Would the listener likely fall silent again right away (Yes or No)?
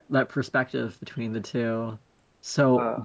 Yes